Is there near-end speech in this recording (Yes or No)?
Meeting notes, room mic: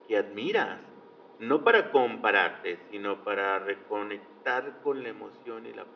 Yes